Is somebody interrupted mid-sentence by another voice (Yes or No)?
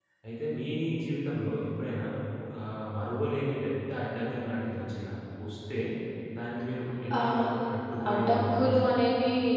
Yes